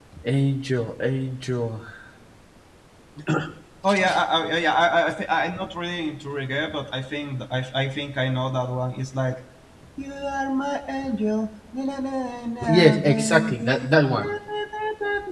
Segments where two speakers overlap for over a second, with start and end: 12.7-13.9

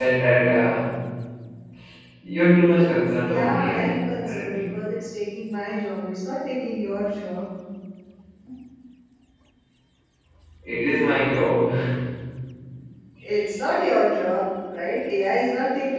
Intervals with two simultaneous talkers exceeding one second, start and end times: 3.2-4.8

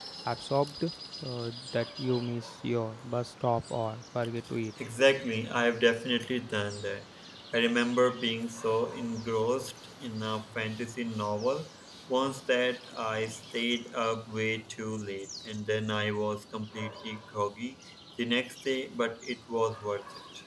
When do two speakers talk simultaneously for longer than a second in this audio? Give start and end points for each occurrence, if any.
none

